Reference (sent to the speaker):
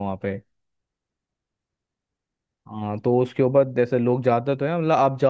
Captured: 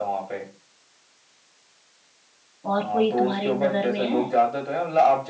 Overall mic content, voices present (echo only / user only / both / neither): both